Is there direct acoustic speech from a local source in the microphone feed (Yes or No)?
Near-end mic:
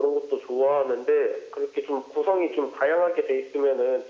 No